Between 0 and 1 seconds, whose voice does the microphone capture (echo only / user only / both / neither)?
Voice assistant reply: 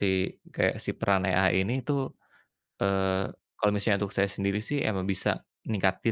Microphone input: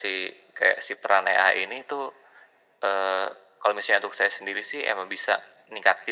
echo only